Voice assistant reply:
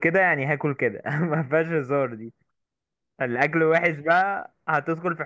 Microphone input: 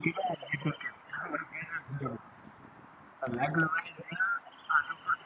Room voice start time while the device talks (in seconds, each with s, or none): none